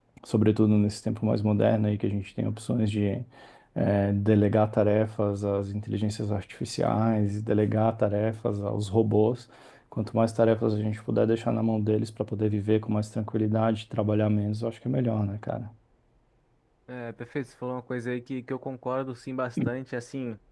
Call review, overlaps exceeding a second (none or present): none